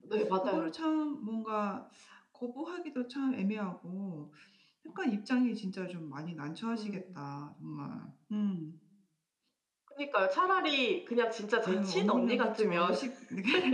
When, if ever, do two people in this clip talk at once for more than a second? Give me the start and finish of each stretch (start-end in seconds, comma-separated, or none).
11.7-12.9